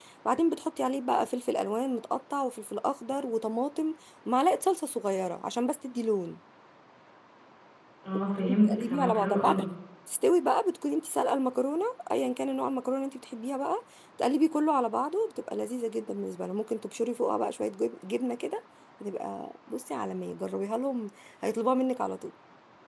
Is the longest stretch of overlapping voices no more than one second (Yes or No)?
No